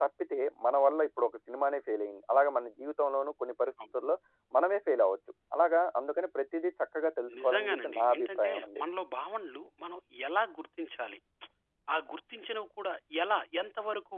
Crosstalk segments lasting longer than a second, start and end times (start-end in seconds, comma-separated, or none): 7.4-8.8